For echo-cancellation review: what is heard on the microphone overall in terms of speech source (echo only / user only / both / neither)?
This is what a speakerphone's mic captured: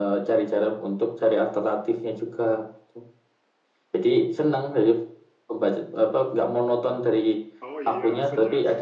both